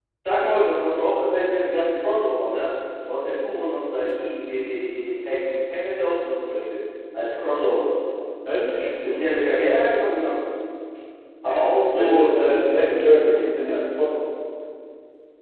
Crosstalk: present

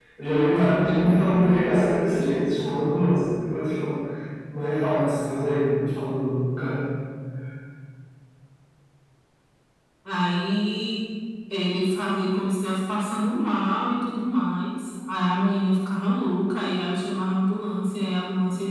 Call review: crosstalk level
none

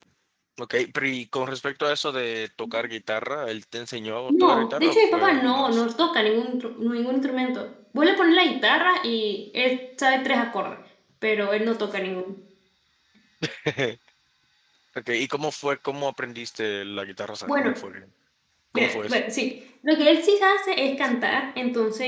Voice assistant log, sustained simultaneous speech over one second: present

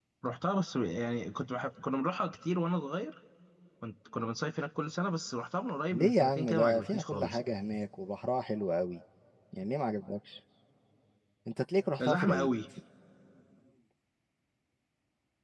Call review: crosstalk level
present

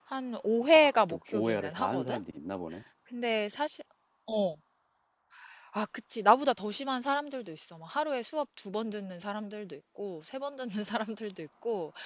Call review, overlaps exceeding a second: present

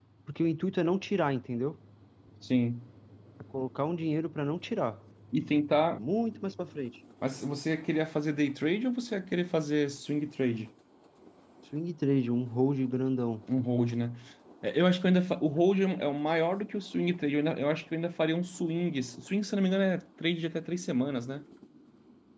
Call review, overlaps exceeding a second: none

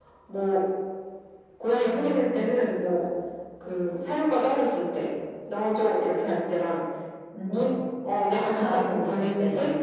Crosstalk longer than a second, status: present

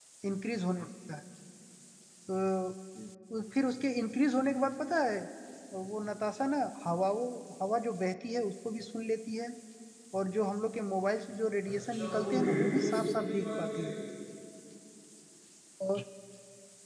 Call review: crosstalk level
present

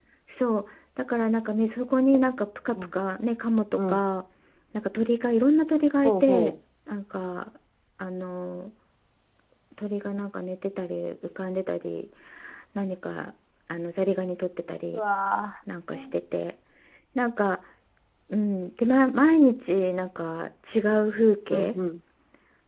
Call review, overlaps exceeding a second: none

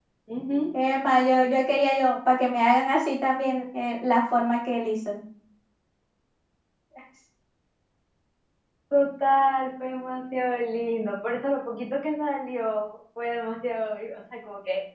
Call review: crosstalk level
none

